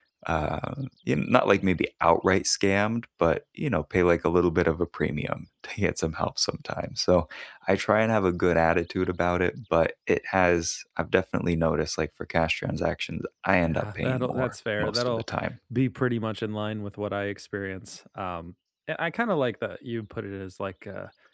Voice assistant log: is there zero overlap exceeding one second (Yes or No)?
No